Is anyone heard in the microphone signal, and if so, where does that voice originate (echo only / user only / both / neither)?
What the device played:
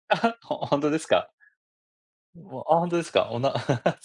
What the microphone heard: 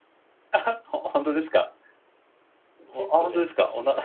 both